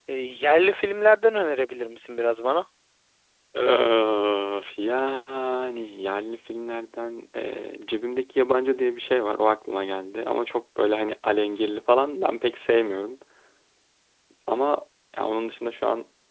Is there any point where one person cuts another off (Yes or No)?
No